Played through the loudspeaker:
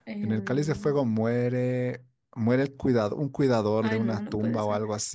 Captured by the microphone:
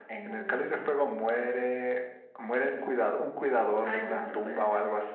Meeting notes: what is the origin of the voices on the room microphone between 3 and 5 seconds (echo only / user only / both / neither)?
echo only